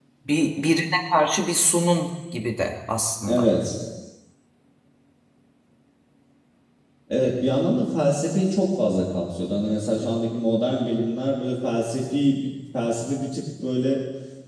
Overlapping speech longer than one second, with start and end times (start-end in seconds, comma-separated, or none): none